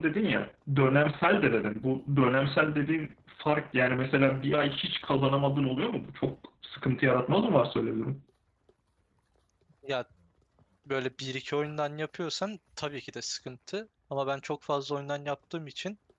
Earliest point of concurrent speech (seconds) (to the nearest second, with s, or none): none